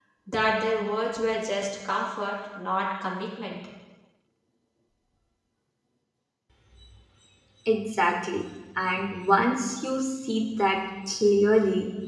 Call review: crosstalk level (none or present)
none